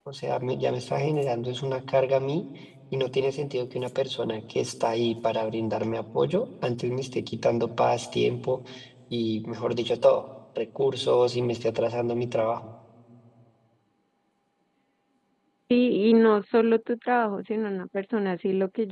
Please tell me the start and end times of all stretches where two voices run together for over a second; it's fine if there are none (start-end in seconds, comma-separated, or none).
none